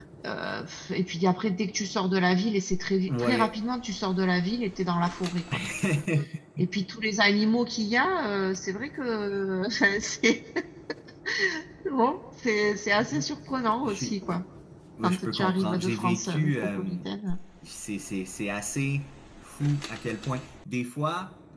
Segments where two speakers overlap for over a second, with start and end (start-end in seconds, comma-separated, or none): 15.0-17.0